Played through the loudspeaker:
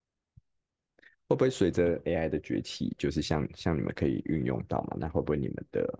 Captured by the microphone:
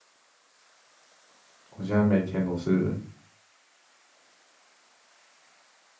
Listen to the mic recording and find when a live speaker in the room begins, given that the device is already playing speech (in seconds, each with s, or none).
1.7 s